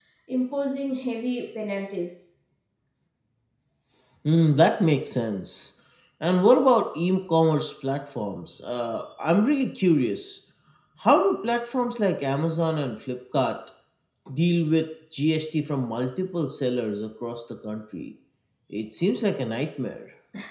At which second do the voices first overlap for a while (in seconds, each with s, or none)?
none